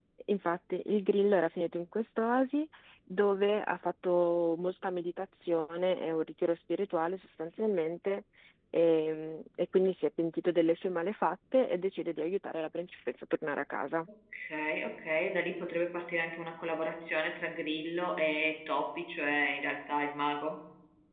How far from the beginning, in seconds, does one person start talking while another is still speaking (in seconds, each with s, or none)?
none